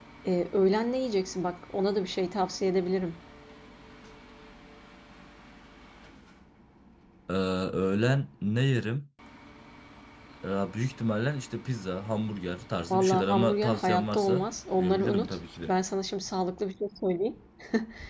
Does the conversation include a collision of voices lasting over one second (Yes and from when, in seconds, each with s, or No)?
Yes, from 12.9 s